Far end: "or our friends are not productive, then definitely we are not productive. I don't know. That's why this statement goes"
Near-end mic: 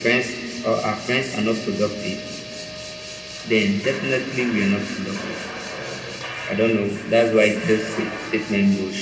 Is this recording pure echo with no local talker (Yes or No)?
Yes